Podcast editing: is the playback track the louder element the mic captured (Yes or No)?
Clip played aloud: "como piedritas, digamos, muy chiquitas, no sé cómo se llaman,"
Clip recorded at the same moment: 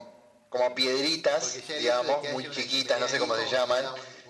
Yes